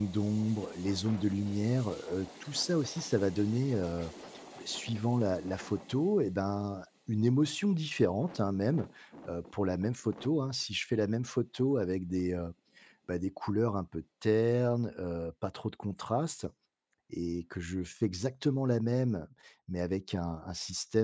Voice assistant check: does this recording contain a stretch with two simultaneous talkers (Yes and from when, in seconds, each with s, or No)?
No